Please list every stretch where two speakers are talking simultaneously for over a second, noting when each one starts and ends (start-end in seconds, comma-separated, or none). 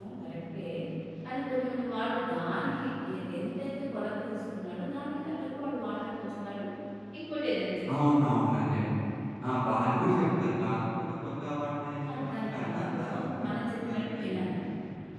12.1-14.3